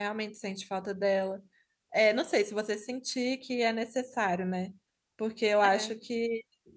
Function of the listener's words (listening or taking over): listening